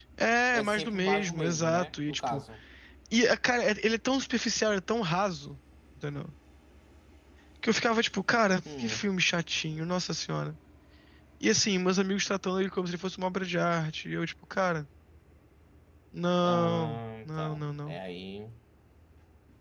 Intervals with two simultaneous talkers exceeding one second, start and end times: 0.5-2.4, 16.4-18.0

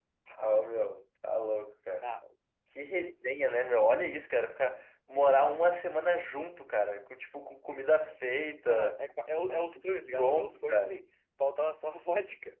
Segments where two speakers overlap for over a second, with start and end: 9.5-11.0

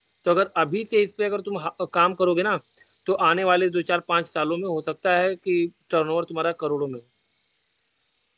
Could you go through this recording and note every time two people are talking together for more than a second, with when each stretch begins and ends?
none

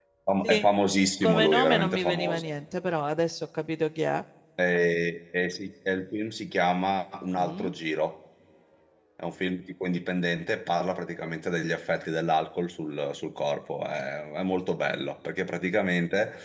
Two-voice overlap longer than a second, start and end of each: 1.2-2.5

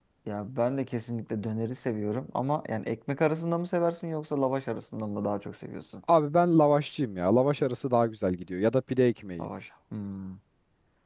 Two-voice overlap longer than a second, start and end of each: none

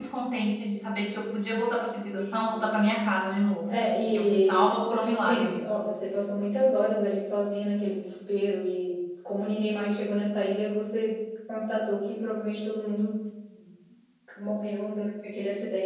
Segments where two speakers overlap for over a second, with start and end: 3.7-5.8

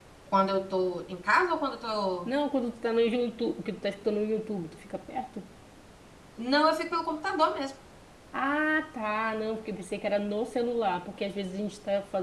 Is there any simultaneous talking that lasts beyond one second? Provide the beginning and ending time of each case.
none

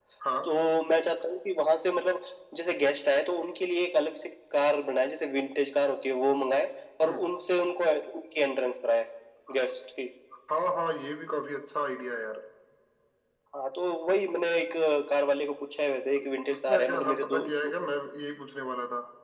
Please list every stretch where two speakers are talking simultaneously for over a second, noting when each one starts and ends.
16.2-17.7

